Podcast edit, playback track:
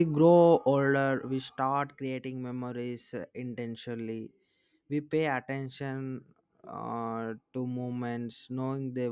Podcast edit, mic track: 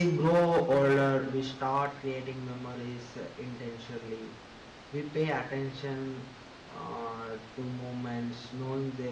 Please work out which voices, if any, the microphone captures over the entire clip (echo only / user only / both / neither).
echo only